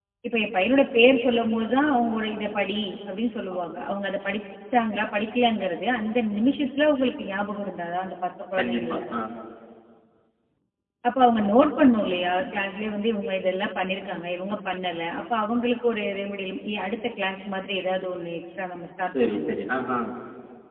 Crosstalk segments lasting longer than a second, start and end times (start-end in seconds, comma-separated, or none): none